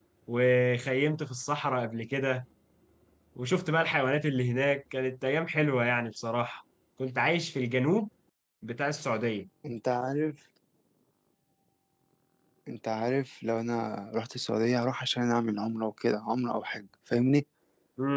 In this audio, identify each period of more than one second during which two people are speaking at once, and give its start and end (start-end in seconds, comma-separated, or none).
none